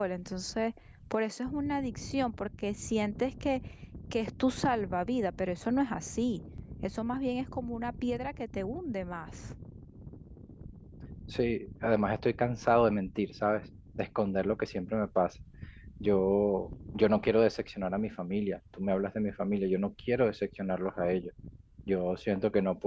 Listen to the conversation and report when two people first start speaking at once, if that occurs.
none

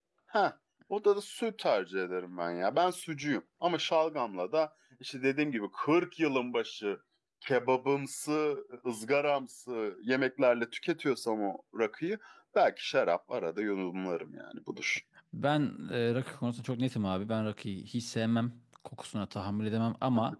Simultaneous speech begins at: none

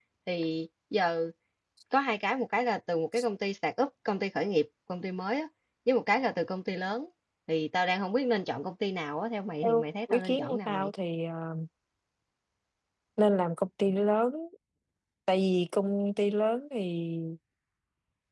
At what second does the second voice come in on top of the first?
9.6 s

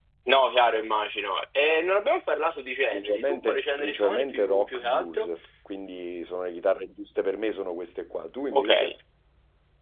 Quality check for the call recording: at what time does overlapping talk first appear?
2.9 s

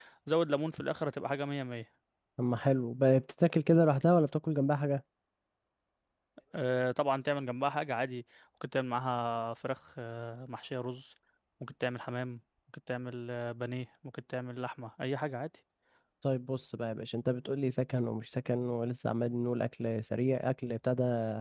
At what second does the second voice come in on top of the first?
none

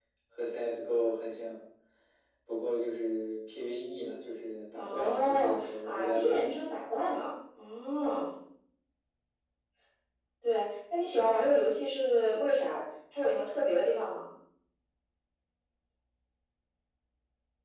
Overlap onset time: 4.8 s

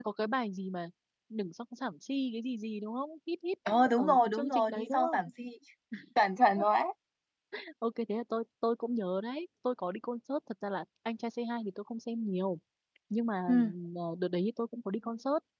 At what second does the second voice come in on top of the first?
3.7 s

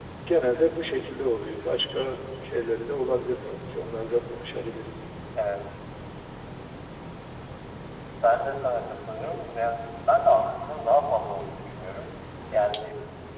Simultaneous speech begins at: none

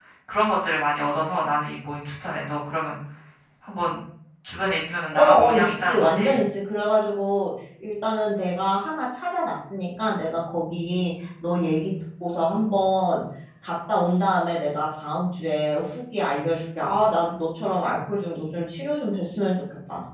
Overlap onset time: 5.1 s

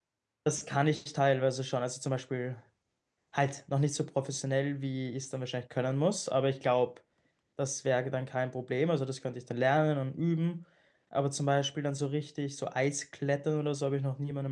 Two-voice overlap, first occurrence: none

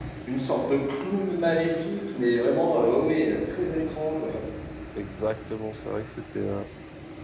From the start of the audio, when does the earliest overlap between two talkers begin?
none

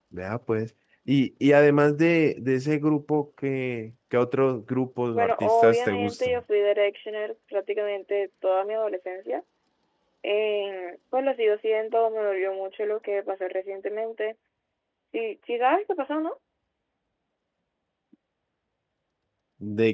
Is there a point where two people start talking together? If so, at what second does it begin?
5.1 s

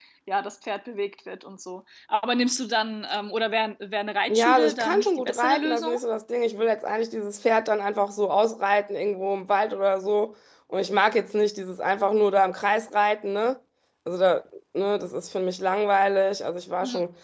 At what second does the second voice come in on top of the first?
4.3 s

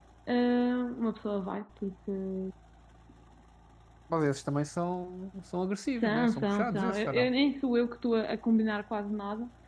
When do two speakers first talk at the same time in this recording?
5.9 s

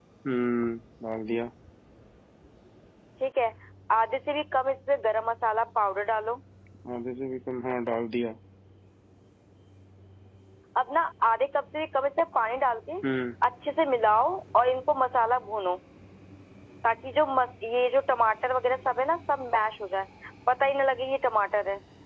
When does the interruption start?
none

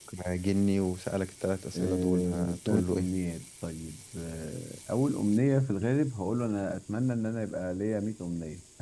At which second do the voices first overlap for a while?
1.7 s

